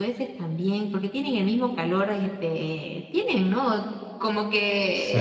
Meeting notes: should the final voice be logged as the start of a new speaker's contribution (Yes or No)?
No